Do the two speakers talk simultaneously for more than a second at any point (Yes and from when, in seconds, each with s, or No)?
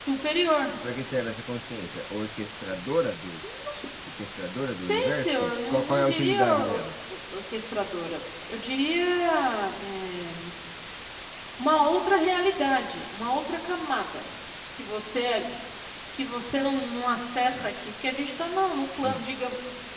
Yes, from 5.1 s